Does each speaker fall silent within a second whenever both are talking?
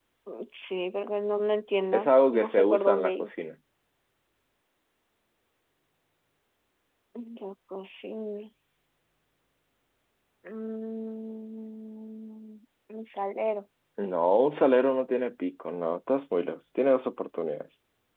No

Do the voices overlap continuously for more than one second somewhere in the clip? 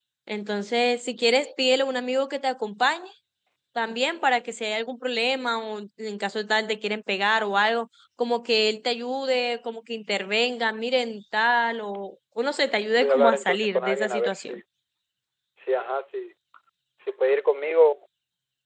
Yes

